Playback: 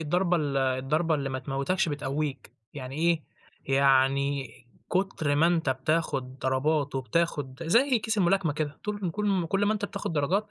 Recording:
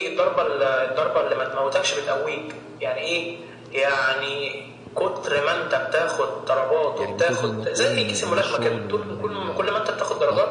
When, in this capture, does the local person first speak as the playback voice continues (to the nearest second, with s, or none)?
7 s